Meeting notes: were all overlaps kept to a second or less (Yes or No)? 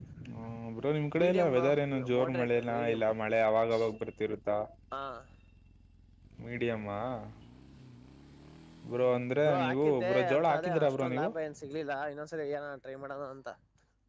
No